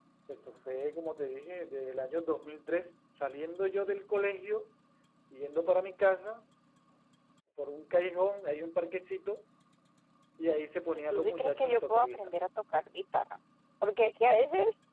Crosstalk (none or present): present